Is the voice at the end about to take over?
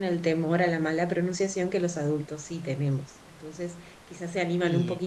No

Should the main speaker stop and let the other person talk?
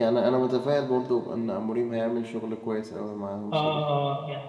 Yes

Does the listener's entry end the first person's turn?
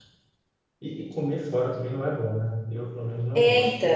Yes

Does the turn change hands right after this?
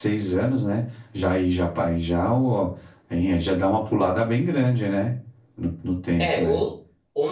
Yes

